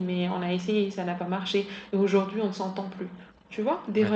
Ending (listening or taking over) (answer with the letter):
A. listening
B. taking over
A